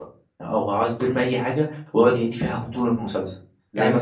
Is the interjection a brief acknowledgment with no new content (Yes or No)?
Yes